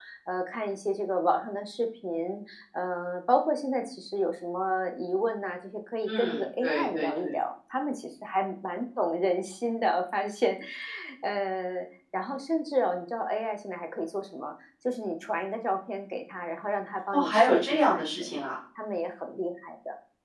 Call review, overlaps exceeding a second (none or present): present